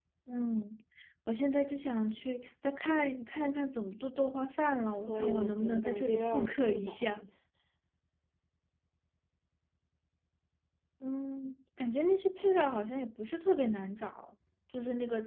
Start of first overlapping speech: 5 s

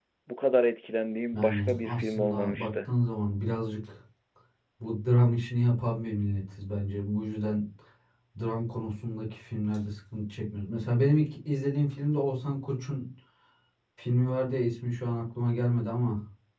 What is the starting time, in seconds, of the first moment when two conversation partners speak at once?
1 s

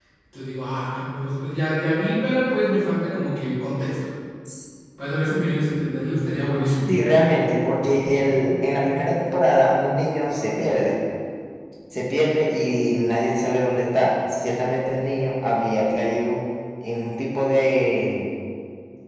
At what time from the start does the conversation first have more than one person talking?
none

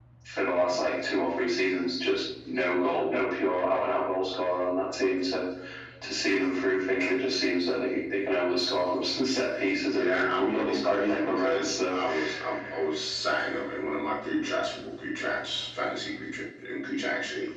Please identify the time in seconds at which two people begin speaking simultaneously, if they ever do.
10 s

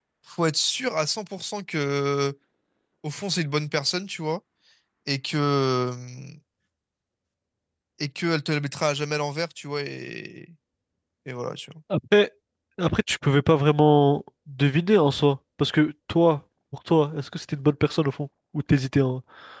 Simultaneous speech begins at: none

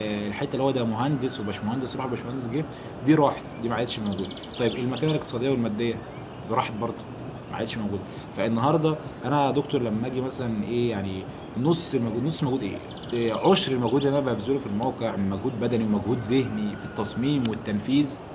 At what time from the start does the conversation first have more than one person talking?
none

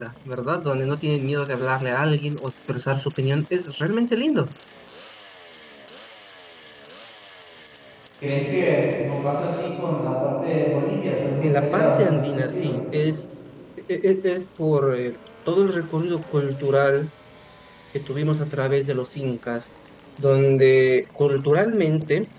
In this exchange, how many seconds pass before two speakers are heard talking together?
11 s

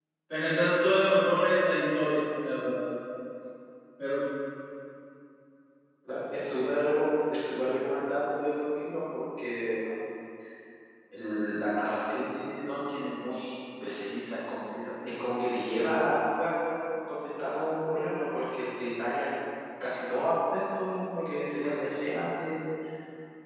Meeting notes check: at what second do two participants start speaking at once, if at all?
none

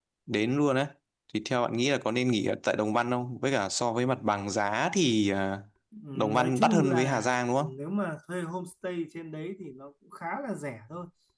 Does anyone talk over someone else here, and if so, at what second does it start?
6 s

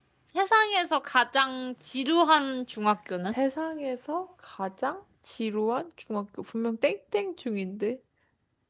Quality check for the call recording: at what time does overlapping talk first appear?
none

